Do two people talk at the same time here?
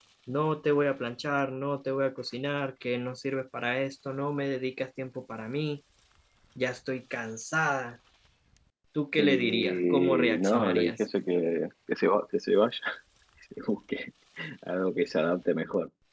Yes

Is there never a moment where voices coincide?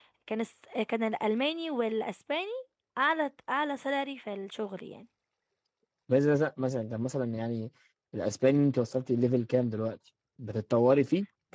Yes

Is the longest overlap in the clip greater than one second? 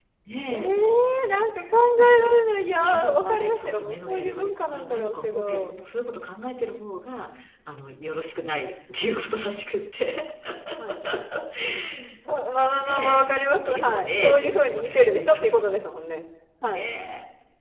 Yes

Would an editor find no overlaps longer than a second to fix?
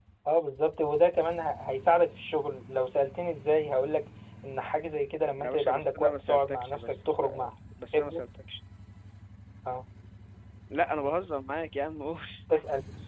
No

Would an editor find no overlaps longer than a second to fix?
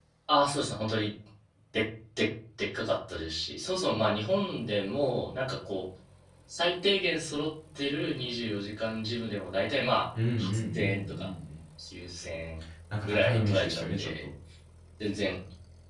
No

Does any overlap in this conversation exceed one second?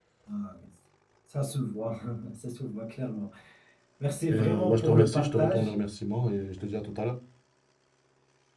Yes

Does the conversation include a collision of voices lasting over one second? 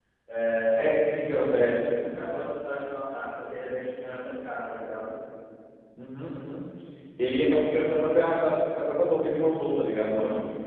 No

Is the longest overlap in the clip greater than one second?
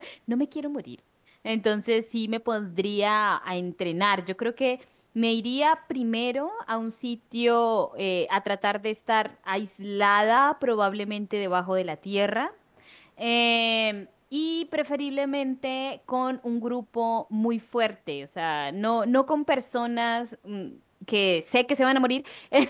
No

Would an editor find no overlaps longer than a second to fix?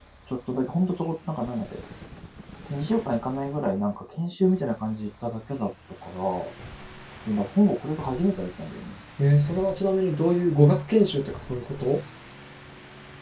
Yes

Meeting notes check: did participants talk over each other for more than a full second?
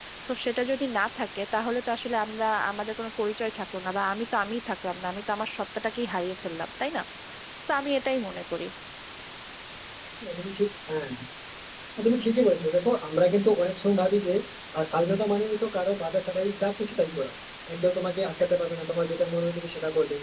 No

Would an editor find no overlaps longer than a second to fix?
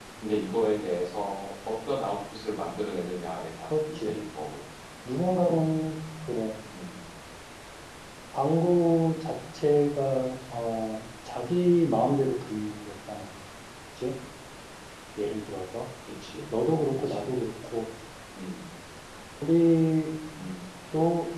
Yes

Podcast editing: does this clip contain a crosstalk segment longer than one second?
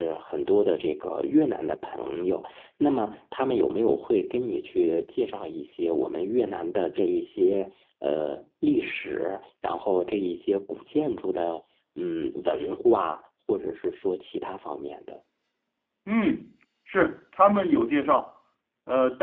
No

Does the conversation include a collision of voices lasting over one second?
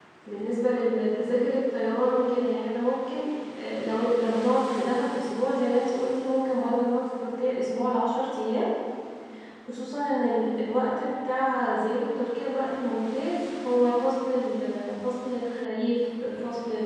No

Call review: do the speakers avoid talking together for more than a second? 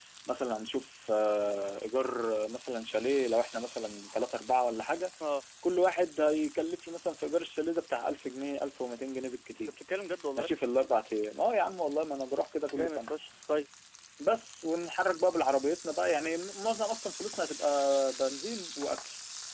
Yes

